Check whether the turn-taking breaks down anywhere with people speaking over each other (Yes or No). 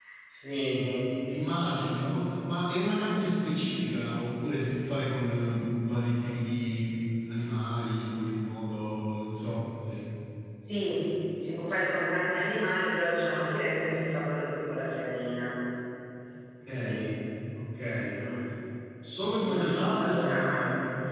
Yes